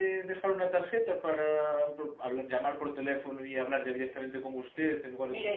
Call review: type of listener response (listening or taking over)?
taking over